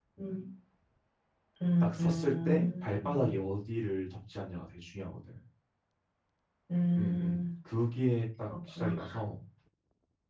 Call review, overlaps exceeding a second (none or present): present